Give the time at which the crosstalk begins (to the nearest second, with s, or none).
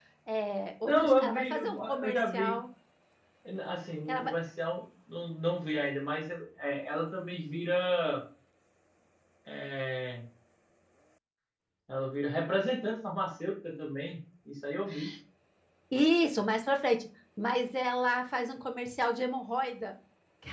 1 s